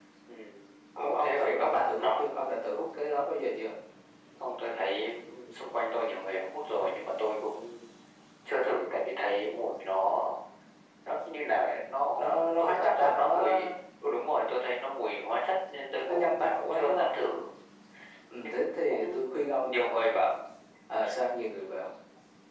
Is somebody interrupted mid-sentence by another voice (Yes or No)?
Yes